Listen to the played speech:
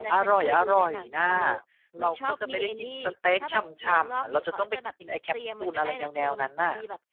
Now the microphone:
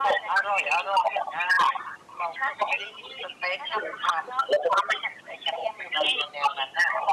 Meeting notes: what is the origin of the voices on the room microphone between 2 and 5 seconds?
echo only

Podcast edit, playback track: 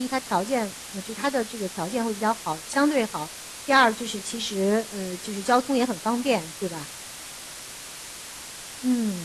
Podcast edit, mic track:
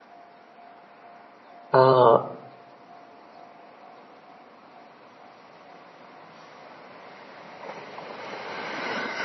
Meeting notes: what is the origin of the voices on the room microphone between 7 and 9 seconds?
neither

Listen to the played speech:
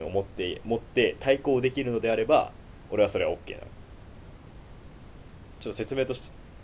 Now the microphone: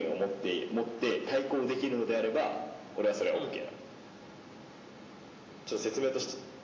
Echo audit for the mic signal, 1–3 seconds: echo only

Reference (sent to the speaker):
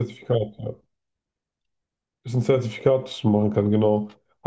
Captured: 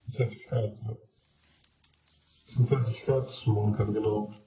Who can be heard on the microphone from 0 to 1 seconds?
echo only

